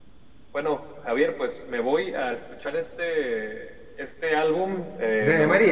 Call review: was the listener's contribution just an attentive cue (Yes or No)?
Yes